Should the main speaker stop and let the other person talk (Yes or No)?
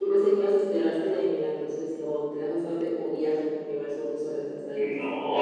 Yes